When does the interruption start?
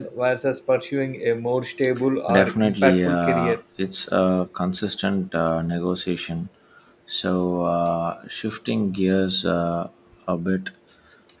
2.3 s

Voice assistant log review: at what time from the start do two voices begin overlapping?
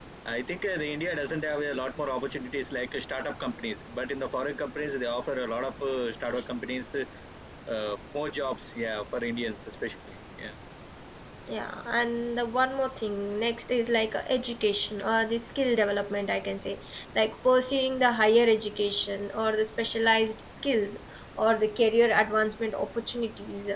none

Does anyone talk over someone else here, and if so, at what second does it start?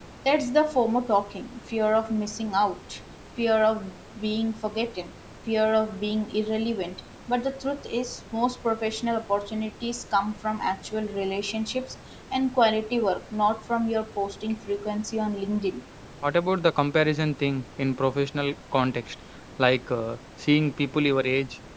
none

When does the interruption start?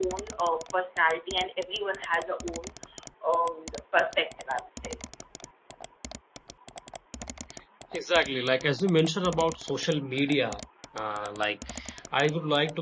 none

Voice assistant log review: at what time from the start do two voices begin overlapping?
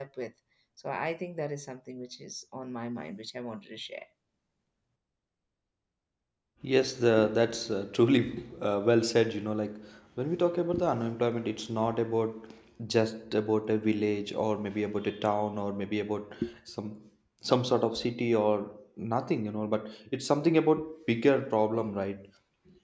none

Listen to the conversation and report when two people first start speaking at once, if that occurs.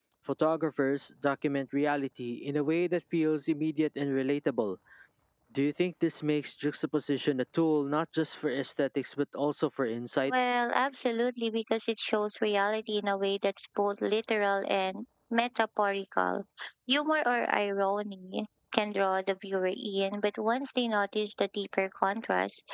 none

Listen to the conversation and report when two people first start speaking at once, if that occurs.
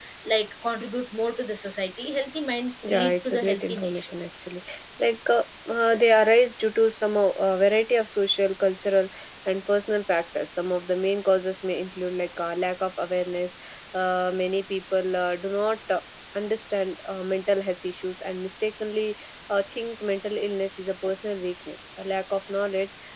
2.8 s

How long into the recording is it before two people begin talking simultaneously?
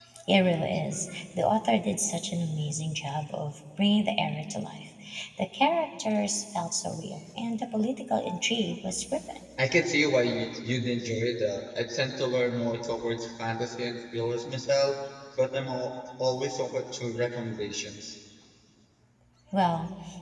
none

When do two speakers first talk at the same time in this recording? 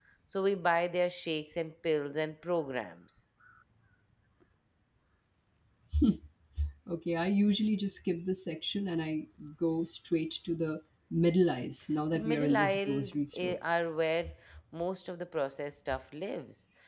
12.1 s

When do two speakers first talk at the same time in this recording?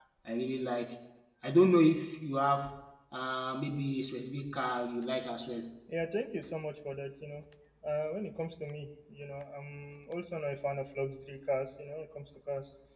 none

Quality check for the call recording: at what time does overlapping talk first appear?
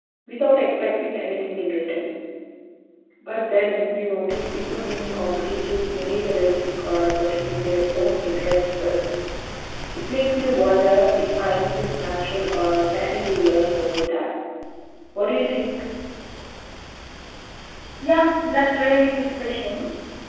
none

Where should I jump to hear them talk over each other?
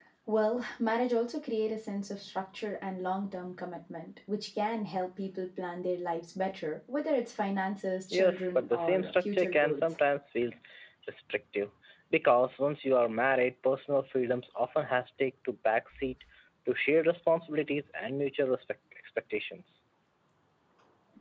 8.1 s

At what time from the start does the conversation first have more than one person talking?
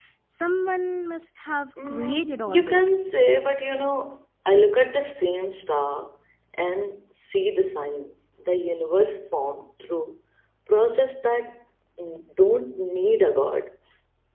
1.8 s

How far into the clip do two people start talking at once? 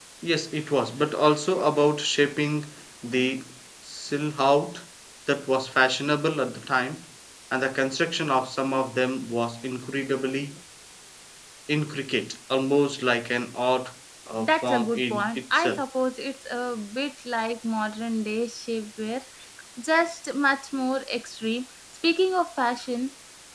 14.4 s

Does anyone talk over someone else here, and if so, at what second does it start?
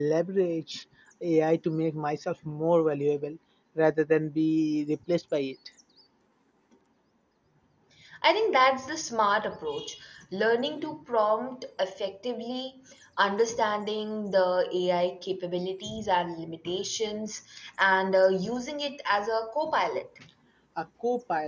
none

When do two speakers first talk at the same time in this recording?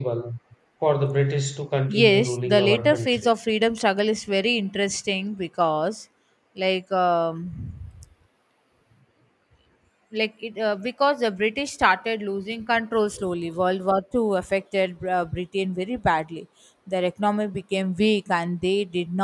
1.9 s

